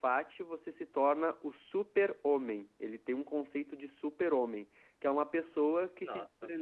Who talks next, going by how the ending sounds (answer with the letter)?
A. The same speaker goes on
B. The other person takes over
A